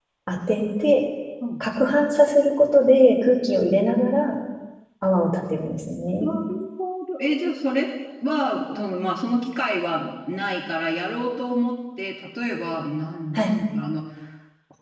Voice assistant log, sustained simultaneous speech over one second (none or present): none